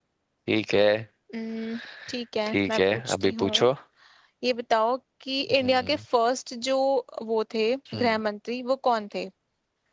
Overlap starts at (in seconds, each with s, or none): 2.5 s